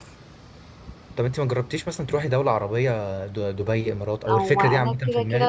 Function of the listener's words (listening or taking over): taking over